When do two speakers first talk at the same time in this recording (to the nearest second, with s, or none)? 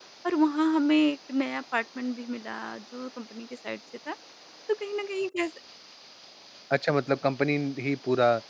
none